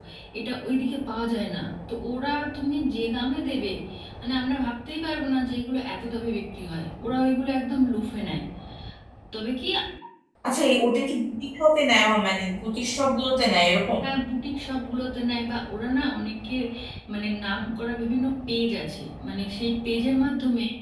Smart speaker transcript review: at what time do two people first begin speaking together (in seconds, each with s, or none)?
none